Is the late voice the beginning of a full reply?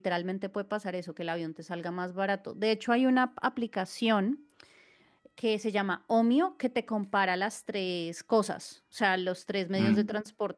No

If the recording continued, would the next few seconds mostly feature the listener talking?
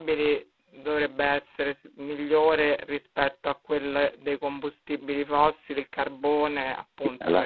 Yes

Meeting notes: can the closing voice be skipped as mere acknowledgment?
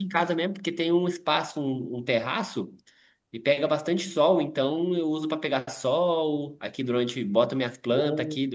Yes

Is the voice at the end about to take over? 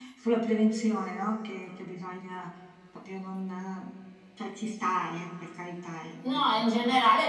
Yes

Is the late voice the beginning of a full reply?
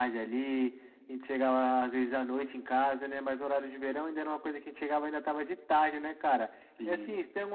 No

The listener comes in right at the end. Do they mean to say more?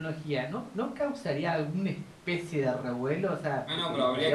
Yes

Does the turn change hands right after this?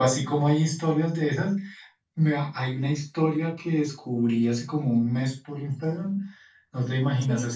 No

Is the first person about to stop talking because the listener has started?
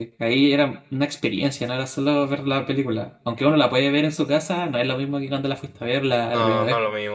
Yes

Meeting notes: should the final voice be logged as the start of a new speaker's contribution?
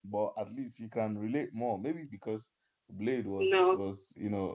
No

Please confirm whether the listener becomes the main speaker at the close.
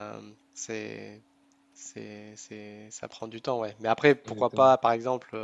No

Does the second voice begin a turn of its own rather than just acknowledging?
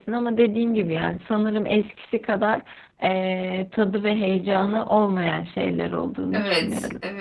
Yes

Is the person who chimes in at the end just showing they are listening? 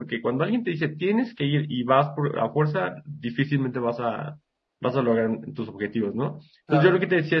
Yes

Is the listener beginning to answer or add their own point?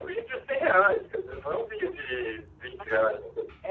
Yes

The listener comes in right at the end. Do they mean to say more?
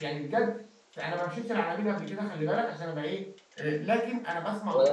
No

